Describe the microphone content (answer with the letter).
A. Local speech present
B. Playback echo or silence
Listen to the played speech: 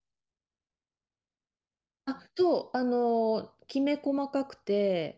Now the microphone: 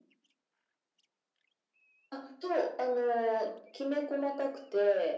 B